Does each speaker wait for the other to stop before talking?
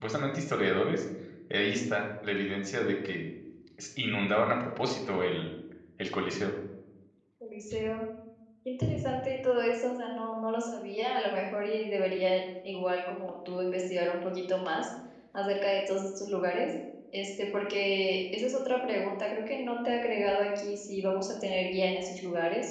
Yes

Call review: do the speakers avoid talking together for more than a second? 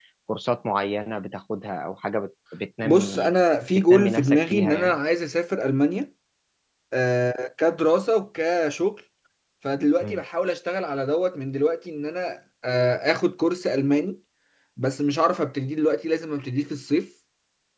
No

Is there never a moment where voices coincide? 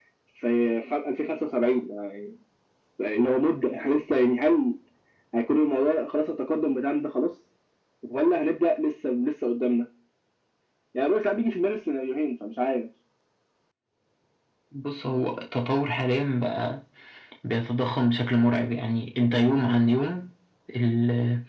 Yes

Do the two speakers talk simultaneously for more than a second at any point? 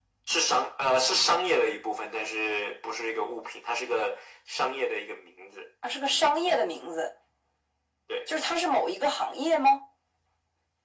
No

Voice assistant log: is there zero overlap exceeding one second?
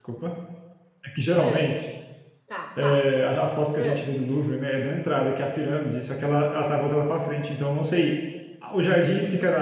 Yes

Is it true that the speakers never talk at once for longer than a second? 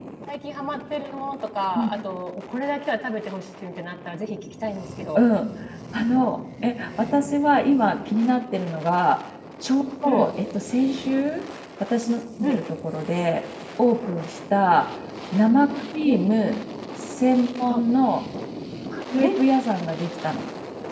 Yes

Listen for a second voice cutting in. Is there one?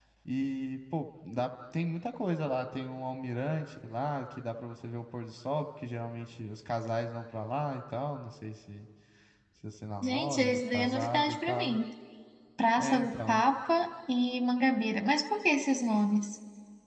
Yes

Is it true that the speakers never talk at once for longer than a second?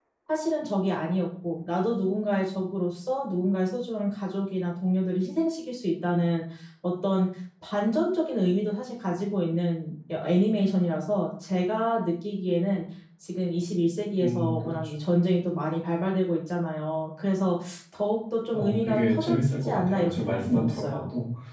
No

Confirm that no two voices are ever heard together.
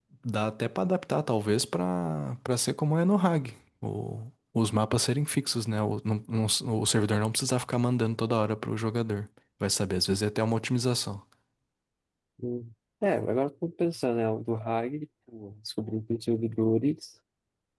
Yes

